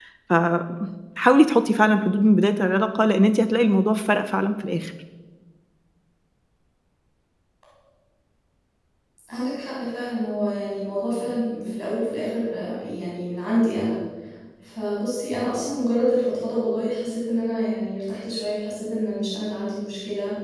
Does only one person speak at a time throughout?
Yes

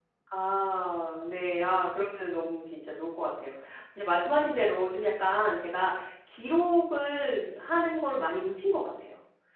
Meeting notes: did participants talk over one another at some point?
No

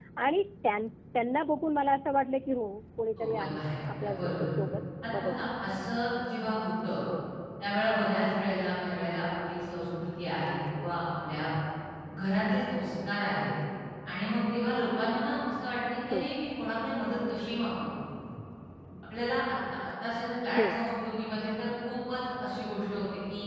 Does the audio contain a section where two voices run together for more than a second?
Yes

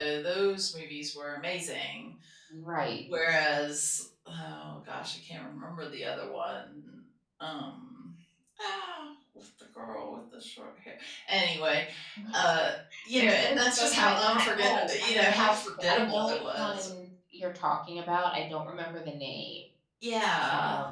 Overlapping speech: Yes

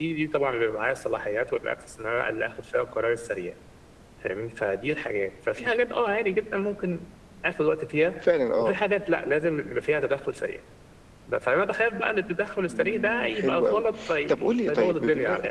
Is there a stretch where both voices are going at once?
Yes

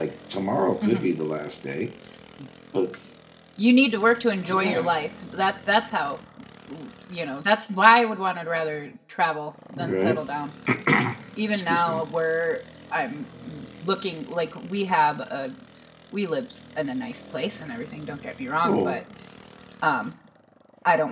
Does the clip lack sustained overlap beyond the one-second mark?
Yes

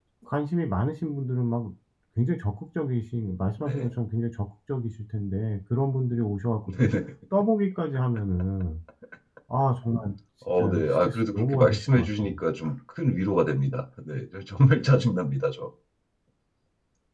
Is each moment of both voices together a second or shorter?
No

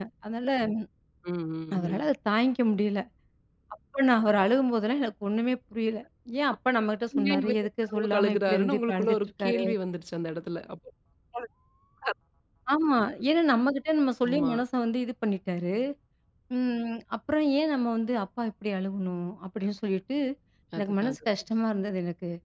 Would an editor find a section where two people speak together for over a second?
Yes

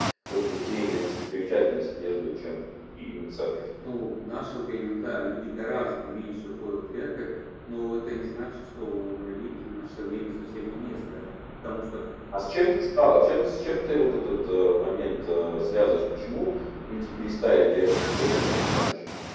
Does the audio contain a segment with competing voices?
No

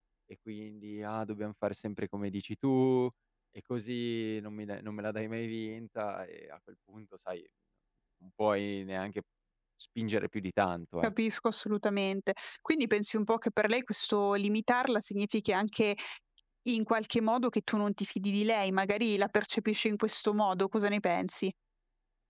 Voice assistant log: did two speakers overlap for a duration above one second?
No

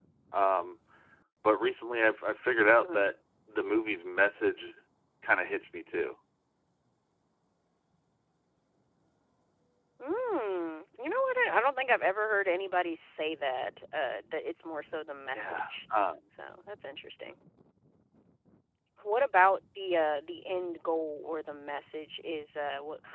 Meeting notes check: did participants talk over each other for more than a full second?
No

